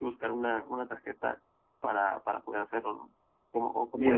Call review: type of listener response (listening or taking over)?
taking over